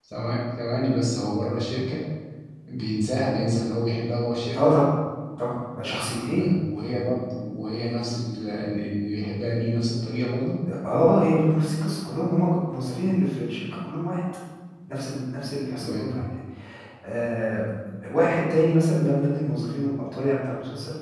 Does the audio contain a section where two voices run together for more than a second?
No

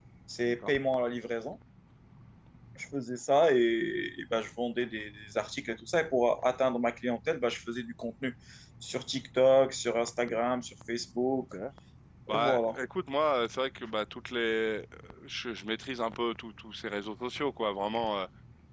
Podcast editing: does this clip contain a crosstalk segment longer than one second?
No

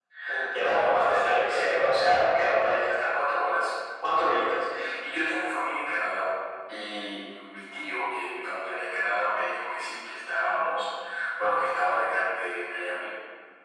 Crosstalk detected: Yes, from 0.6 s

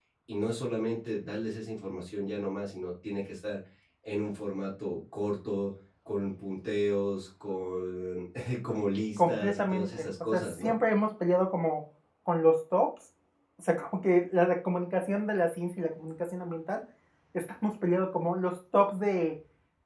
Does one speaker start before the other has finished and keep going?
Yes, from 9.2 s

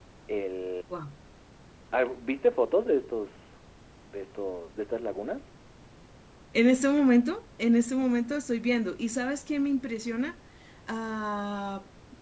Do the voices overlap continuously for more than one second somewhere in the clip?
No

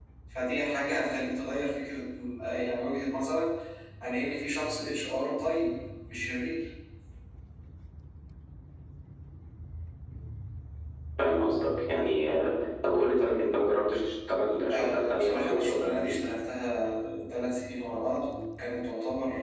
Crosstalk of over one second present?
Yes, from 14.7 s

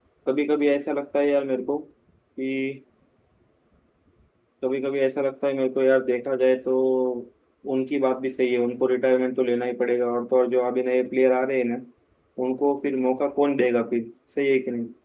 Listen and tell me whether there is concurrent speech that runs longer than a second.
No

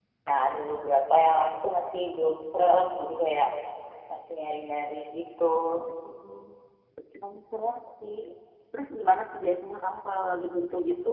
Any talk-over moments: No

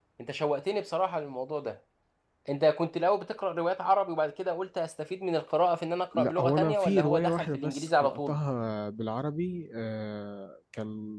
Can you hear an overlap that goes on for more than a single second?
Yes, from 6.1 s

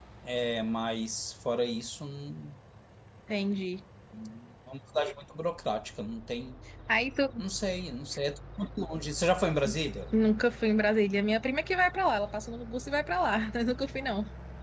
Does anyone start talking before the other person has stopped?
No

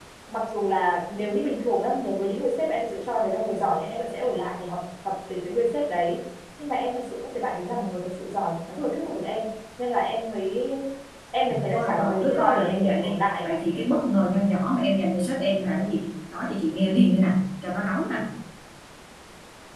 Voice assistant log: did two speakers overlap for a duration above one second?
Yes, from 11.7 s

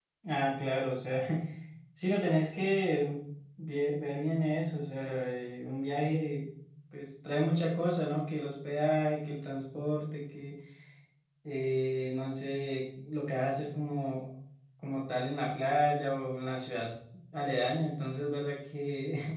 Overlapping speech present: No

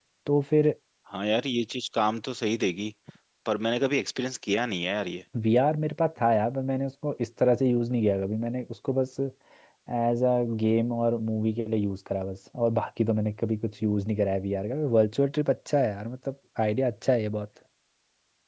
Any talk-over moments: No

